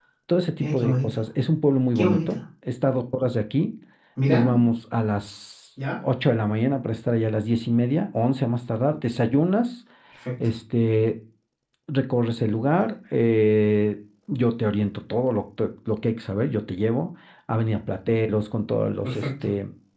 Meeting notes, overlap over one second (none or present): none